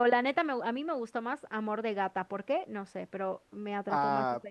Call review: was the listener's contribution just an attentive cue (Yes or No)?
No